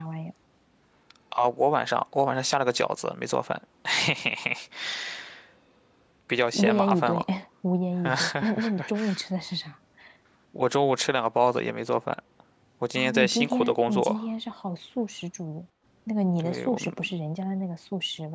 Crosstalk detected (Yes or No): Yes